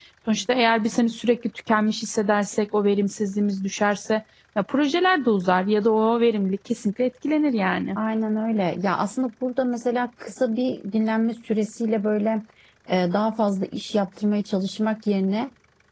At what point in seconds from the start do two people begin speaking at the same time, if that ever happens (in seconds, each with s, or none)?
none